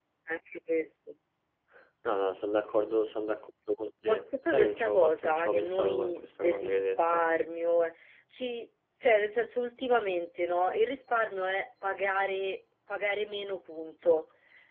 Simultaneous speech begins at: 4 s

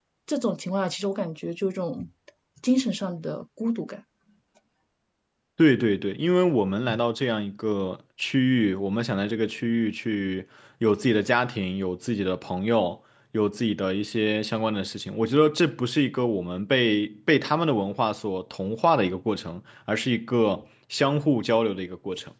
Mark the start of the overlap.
none

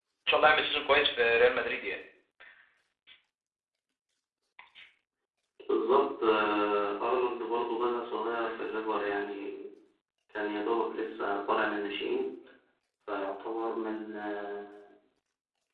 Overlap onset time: none

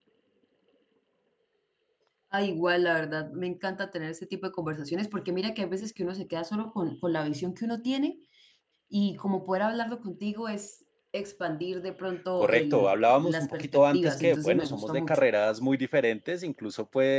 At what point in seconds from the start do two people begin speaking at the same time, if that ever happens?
12 s

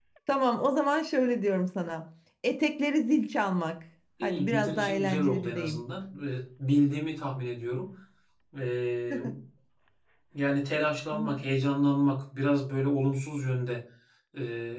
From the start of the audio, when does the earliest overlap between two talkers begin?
4 s

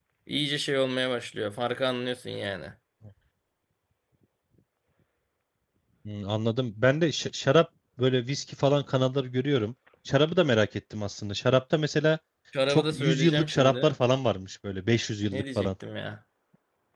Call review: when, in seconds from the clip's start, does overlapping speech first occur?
13 s

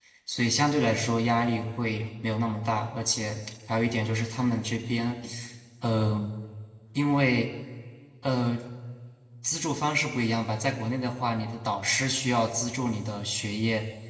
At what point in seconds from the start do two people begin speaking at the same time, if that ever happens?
none

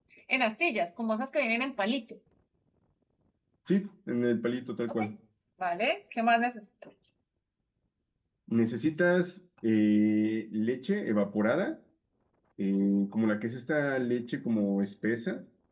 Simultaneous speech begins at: none

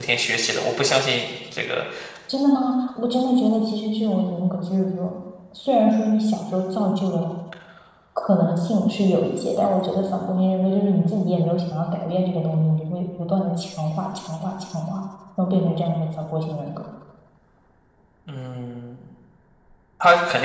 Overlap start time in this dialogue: none

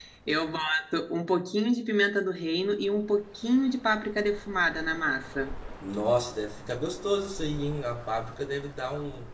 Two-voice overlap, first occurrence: none

